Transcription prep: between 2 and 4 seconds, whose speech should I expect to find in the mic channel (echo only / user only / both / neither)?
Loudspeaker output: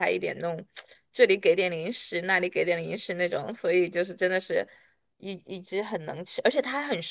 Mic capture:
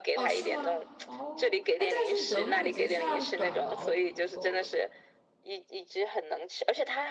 both